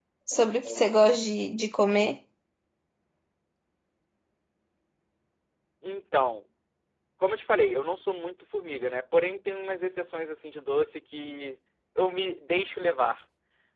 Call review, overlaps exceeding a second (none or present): none